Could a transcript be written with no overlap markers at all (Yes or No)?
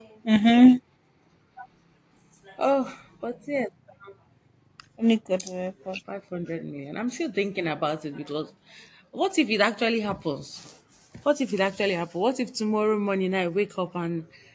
Yes